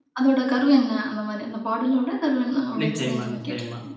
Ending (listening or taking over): taking over